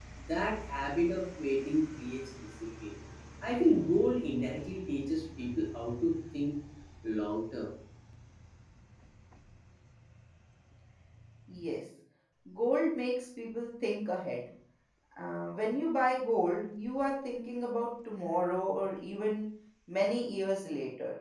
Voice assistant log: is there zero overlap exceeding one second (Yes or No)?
Yes